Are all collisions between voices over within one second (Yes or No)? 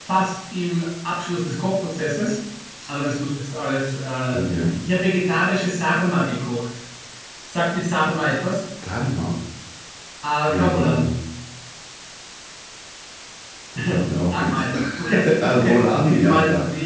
No